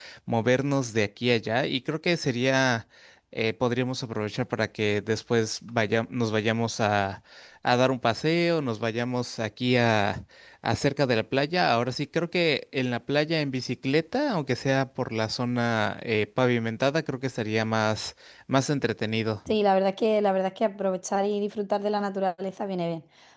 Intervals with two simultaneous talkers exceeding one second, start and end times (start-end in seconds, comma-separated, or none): none